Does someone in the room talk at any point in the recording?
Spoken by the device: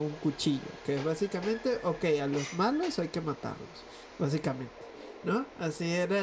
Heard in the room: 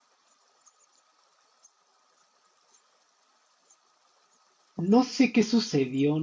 Yes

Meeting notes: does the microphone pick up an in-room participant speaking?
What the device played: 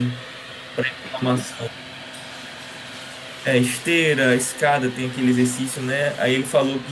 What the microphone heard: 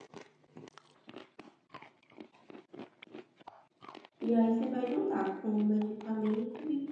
Yes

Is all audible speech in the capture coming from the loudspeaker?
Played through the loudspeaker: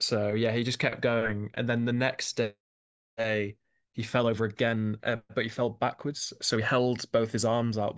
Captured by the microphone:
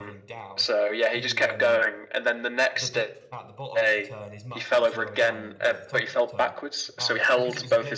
No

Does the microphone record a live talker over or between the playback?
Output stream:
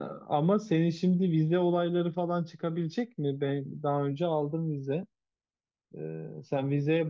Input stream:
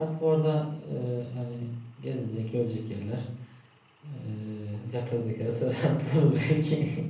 Yes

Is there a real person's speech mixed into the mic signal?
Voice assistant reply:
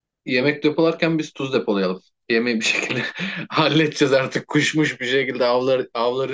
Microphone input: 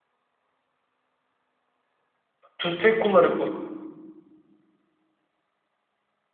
Yes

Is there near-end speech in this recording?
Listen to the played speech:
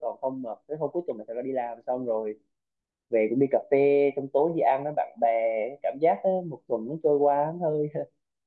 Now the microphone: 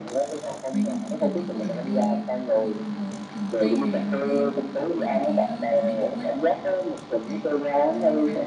Yes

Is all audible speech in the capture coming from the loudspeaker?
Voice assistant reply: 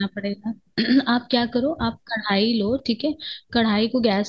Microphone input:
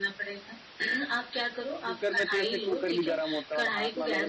No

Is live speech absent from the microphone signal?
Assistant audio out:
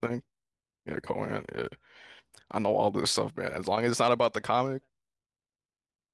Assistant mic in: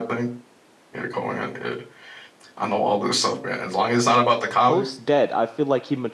No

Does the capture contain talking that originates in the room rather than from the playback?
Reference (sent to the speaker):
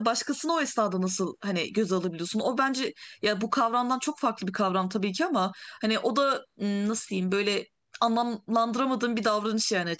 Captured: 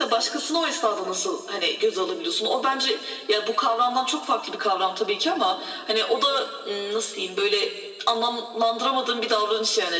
No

